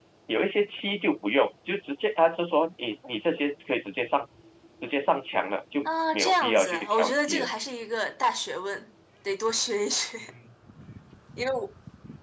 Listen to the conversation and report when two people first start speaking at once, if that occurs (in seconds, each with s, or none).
5.8 s